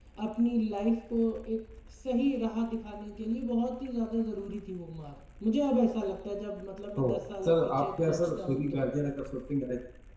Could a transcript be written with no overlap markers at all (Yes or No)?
No